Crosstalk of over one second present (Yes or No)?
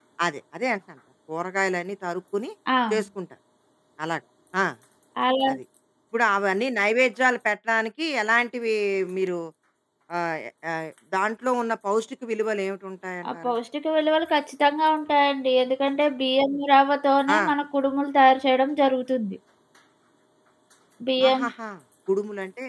No